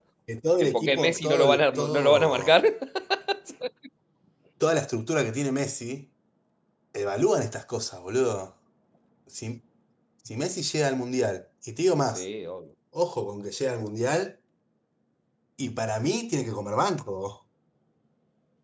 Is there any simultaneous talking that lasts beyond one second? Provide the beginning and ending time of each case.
0.6-2.5

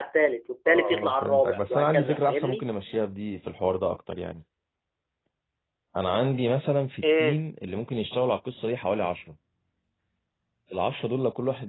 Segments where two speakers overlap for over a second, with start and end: 0.7-2.6

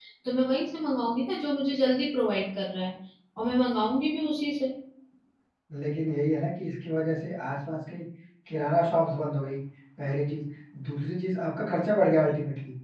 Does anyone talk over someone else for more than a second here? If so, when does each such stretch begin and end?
none

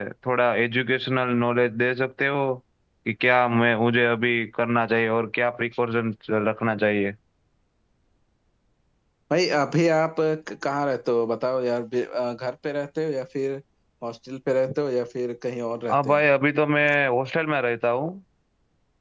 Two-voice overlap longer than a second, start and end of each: none

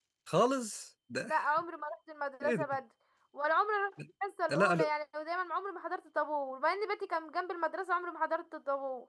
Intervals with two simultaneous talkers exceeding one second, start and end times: none

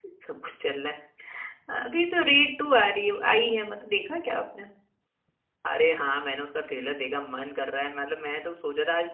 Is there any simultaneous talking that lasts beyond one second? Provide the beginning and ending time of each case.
none

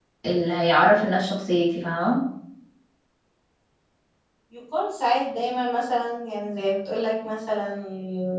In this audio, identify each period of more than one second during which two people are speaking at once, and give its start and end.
none

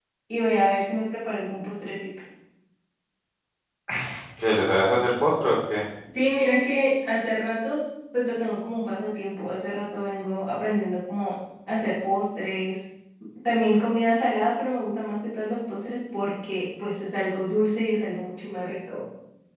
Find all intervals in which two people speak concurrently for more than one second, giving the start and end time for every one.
none

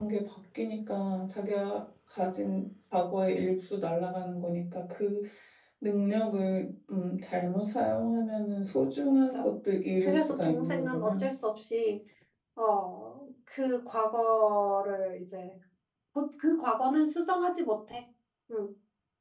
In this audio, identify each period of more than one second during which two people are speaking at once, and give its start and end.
10.0-11.2

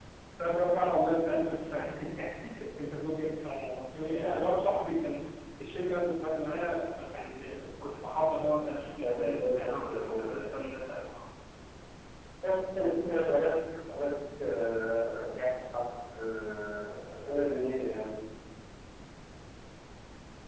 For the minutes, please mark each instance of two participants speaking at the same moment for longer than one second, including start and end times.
9.0-10.6

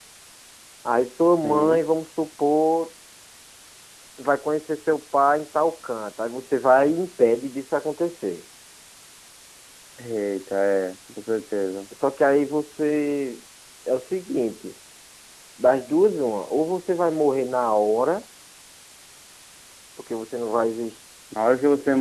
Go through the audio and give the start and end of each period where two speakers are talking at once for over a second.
none

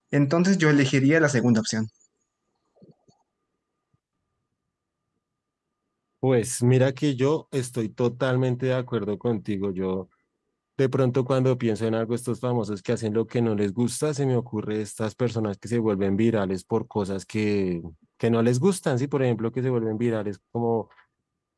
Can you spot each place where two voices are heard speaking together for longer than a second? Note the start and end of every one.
none

